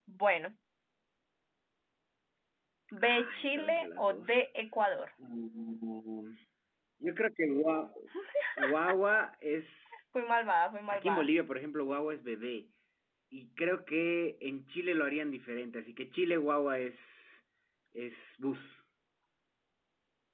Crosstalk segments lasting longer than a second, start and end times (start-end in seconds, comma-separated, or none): 3.0-4.4